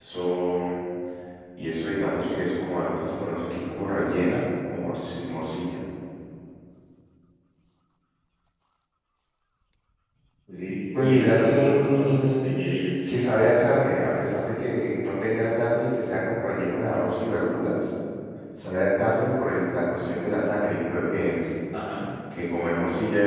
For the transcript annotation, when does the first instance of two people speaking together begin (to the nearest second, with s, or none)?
11 s